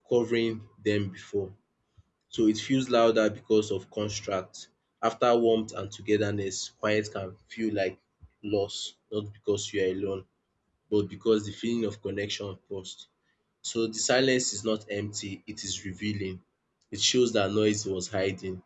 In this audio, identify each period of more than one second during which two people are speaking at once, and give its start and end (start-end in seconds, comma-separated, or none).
none